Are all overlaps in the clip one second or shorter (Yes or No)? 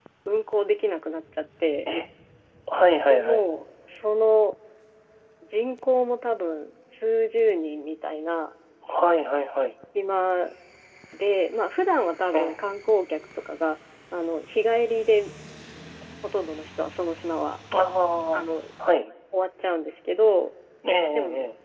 Yes